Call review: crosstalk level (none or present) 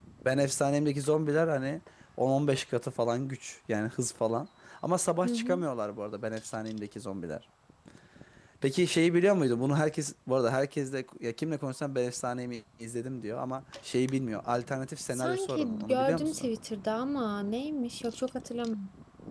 present